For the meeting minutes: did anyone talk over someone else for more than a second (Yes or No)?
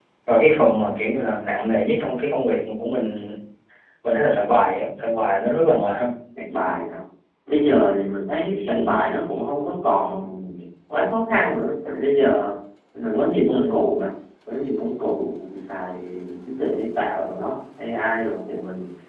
No